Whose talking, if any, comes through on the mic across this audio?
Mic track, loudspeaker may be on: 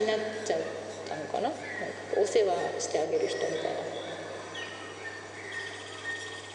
echo only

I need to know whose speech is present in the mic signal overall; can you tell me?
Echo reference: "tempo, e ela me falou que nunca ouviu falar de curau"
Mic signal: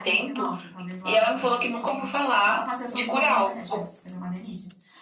both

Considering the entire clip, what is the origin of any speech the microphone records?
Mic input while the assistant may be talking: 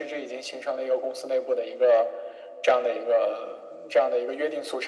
echo only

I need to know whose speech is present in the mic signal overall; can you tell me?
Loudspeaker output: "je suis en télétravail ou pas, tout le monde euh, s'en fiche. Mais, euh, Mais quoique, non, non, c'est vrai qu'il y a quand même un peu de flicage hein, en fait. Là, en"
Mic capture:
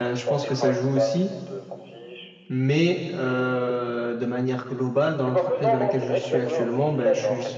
both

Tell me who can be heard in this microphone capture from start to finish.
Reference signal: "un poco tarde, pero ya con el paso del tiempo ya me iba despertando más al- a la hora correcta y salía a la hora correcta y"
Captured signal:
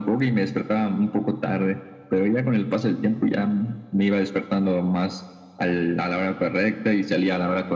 echo only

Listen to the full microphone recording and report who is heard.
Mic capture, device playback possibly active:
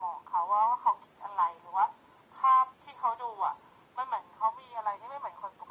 echo only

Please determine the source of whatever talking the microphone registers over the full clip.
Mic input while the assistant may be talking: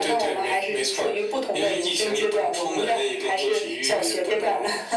echo only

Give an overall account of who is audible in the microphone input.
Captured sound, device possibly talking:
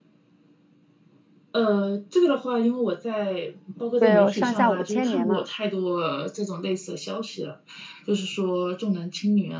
both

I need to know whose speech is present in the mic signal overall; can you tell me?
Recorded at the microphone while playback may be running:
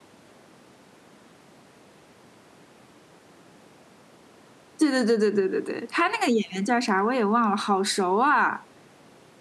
user only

